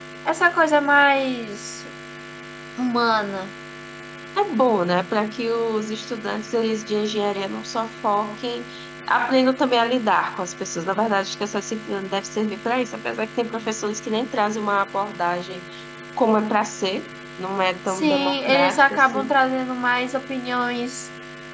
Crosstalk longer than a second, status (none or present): present